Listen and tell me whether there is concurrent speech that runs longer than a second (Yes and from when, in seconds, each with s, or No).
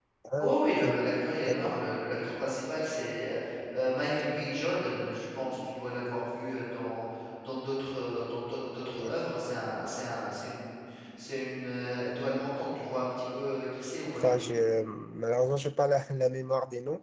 No